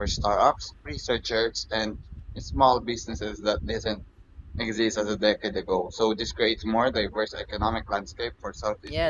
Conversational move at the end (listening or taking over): taking over